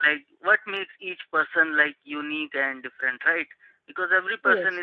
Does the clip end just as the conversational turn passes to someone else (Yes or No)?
No